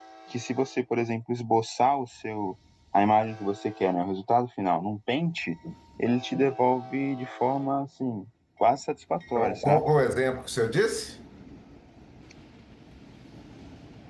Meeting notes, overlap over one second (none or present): none